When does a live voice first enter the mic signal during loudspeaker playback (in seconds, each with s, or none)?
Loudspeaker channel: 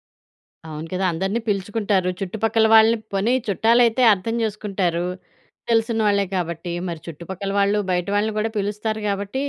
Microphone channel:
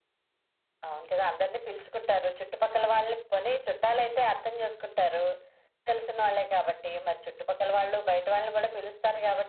none